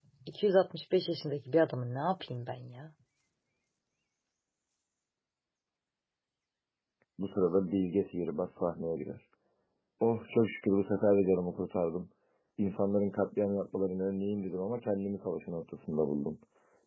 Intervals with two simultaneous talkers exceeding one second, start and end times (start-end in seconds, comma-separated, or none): none